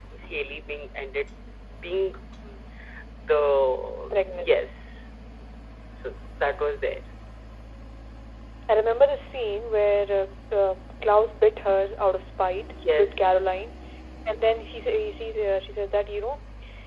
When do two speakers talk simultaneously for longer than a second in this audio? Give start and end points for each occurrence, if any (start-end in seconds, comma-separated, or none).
none